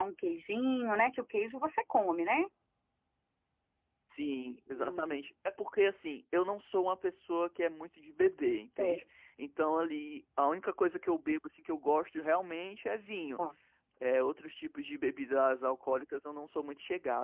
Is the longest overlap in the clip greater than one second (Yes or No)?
No